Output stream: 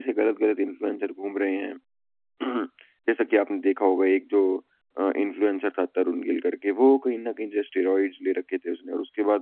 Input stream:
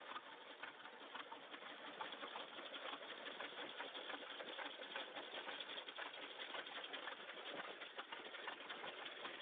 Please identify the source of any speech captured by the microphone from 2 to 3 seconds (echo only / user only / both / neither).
neither